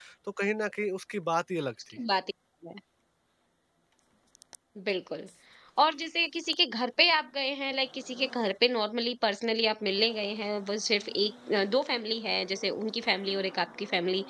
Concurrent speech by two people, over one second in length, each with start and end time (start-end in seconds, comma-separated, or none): none